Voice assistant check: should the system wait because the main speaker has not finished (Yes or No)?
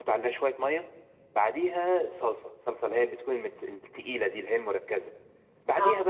Yes